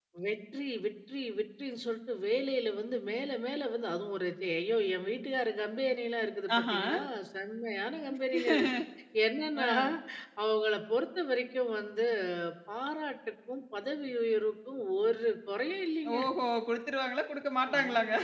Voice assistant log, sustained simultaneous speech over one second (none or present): none